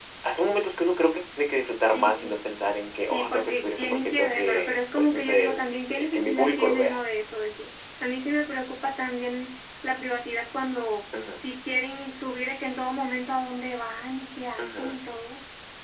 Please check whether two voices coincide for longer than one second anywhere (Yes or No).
Yes